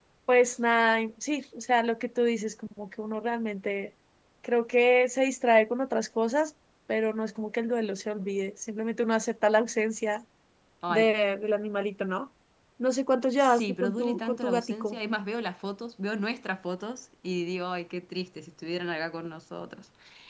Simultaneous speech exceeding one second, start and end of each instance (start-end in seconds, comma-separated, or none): 13.4-15.0